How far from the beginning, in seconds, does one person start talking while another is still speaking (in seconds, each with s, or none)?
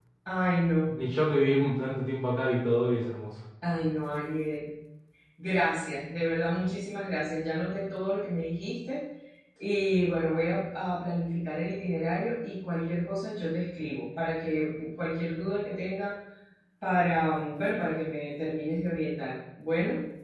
none